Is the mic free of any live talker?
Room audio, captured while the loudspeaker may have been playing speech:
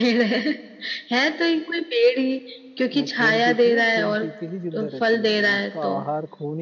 No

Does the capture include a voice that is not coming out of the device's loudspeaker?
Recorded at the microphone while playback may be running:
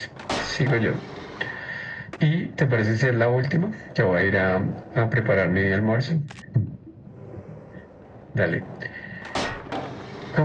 No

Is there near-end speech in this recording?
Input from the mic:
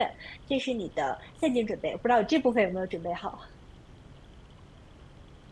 Yes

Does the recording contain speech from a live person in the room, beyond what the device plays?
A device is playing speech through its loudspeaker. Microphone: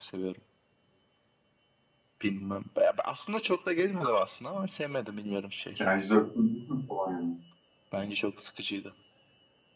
Yes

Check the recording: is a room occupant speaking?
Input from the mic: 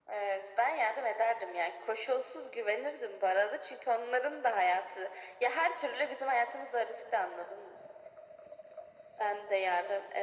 No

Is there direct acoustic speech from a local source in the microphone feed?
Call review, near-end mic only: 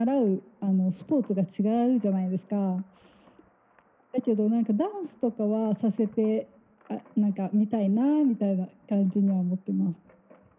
No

